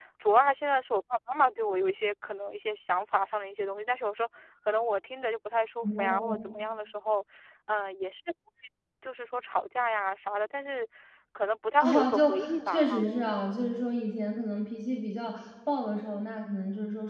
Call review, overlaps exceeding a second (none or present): present